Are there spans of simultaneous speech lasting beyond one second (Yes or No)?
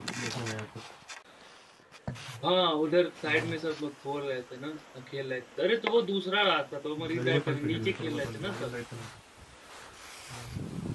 Yes